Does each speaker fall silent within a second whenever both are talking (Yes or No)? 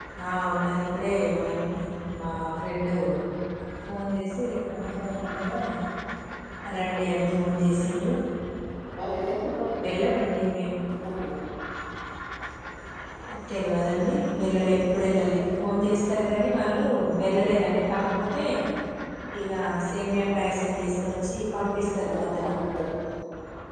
Yes